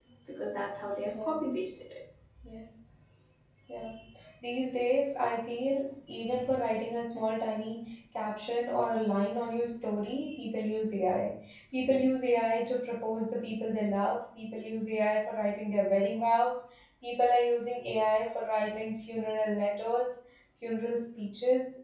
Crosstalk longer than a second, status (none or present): none